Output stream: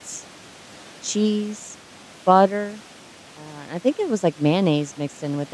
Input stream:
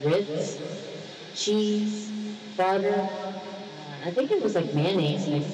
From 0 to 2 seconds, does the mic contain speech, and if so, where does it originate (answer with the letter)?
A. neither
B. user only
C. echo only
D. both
C